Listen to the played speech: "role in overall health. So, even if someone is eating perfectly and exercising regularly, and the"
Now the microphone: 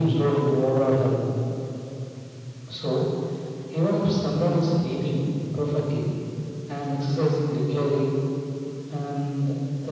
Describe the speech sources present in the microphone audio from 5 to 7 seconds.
echo only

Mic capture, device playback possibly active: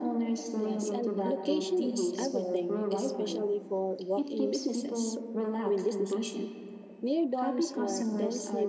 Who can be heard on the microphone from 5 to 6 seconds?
both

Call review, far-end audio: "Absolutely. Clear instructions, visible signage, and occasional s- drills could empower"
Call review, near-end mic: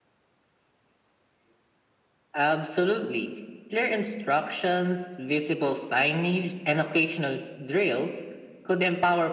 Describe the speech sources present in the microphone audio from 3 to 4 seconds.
echo only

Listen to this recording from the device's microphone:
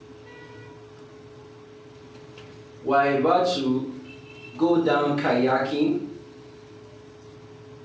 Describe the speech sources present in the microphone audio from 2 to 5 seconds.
user only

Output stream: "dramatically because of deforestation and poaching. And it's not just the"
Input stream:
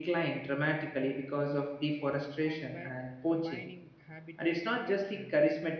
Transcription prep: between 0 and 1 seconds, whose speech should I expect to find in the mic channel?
echo only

